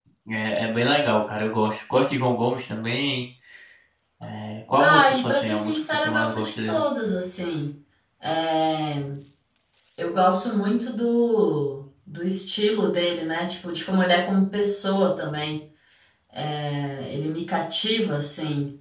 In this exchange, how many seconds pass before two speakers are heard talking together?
4.8 s

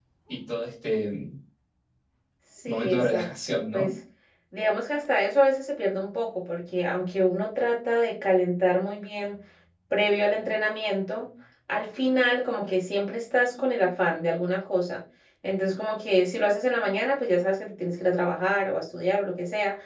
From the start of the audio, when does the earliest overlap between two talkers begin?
2.7 s

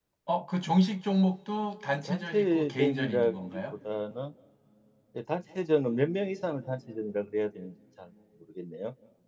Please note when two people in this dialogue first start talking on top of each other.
2.0 s

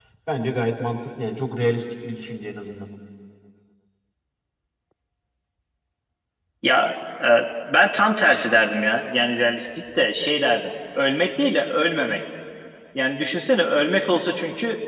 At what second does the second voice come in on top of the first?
none

